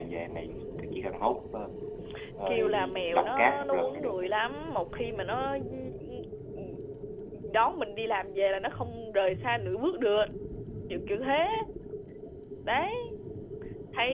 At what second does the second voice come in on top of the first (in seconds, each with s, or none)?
2.5 s